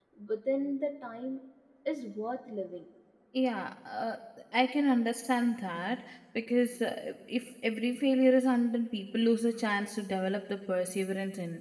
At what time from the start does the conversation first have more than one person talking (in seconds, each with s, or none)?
none